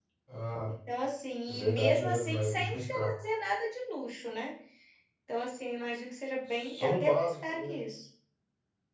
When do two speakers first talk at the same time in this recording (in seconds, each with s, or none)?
1.5 s